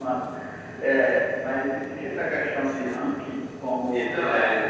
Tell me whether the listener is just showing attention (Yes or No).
No